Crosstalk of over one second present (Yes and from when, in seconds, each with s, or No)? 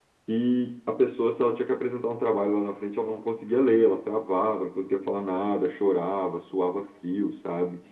No